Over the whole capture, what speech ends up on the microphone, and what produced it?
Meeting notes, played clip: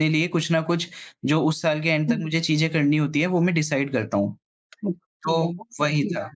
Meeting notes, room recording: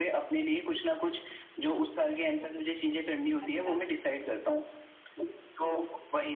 both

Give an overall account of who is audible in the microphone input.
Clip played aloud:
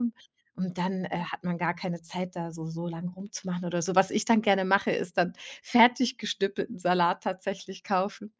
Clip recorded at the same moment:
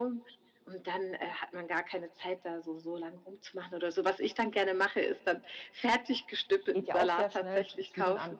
both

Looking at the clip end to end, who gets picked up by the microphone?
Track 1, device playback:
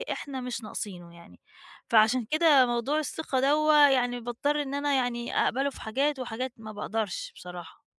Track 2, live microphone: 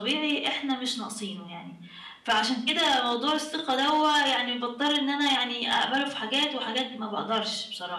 echo only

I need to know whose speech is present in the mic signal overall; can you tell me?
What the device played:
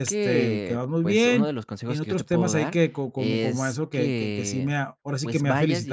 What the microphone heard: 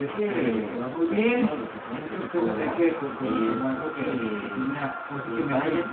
echo only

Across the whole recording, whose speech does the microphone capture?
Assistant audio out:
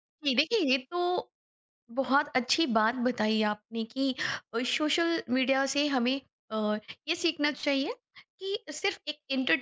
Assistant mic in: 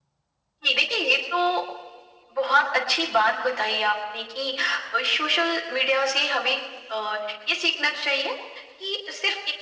echo only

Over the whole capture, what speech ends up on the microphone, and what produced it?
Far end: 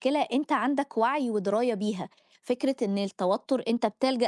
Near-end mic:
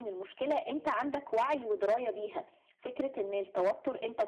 echo only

